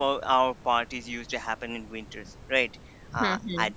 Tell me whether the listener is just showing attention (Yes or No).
Yes